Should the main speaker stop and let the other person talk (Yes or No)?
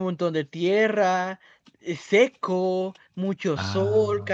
No